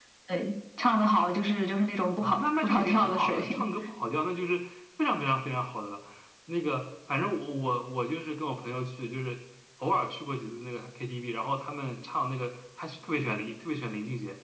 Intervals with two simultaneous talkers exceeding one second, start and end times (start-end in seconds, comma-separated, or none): 2.2-3.5